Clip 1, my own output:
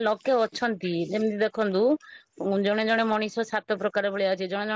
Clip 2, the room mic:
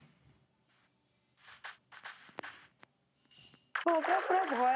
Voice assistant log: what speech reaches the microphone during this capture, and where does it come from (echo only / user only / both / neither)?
user only